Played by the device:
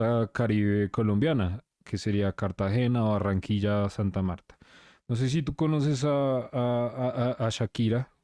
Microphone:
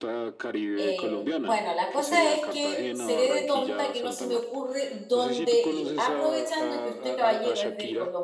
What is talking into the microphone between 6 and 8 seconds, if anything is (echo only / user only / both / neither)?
both